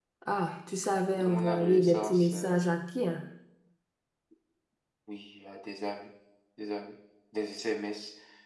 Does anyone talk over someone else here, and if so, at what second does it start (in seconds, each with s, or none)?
1.2 s